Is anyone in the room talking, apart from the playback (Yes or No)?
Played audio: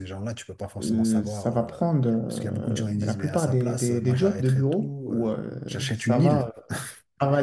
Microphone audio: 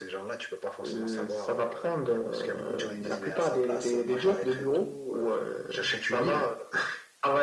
No